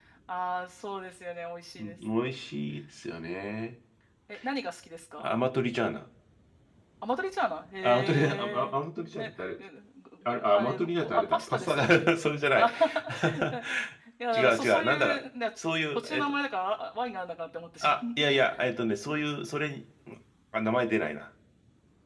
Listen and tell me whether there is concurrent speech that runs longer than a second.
Yes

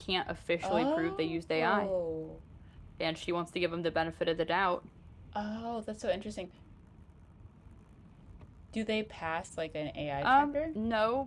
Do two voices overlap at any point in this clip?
Yes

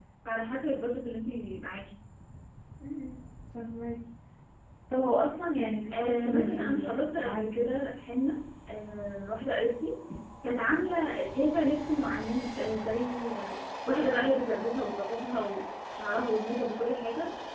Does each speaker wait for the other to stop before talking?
No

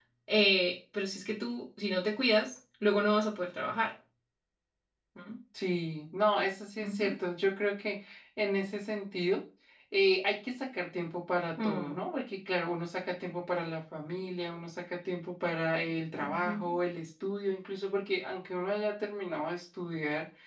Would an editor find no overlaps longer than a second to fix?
Yes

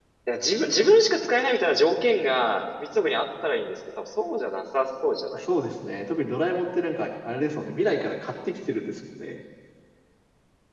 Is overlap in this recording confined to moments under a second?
Yes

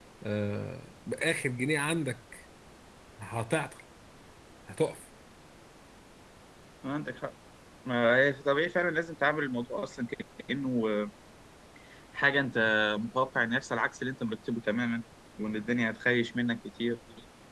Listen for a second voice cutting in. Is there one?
No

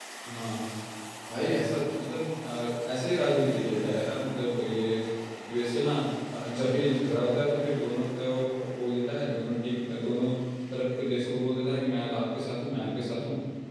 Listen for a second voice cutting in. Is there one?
No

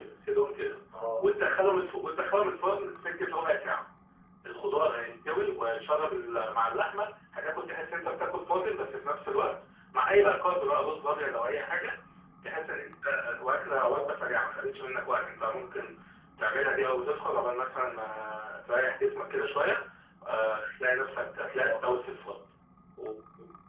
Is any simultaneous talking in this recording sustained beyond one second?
No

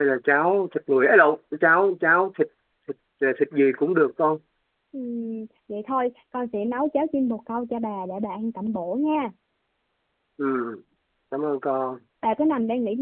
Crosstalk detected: No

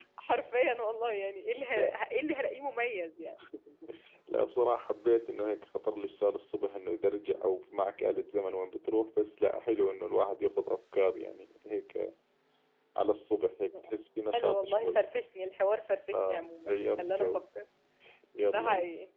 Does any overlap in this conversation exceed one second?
Yes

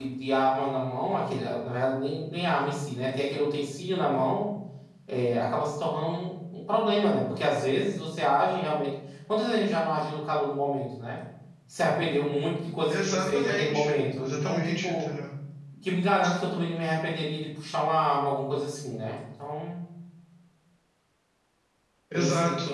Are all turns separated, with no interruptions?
No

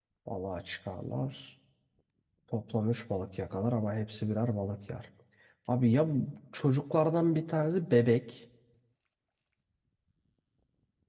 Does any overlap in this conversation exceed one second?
No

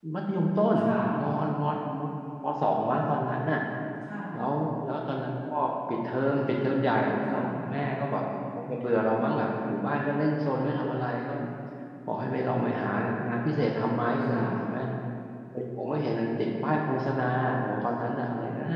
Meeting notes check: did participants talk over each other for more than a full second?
No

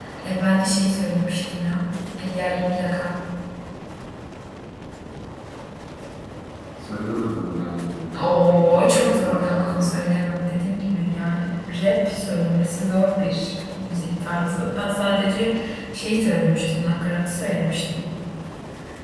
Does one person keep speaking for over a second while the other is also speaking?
Yes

